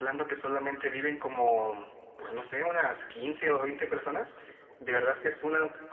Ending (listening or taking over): listening